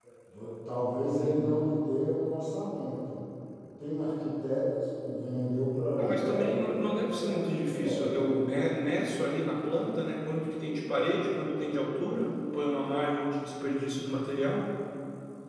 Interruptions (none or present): present